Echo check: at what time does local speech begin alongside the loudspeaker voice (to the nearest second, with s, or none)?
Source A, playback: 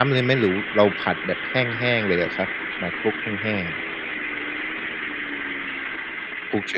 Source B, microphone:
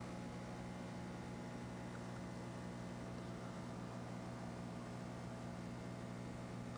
none